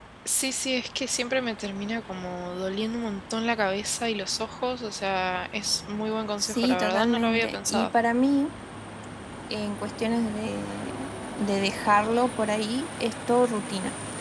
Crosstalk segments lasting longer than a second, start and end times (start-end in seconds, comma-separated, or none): 6.4-7.9